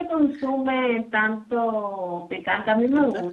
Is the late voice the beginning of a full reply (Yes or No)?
No